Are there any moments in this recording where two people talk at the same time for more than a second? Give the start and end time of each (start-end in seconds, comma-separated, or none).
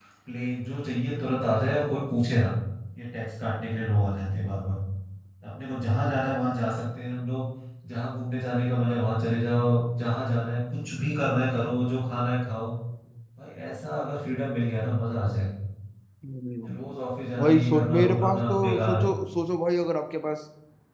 17.4-19.0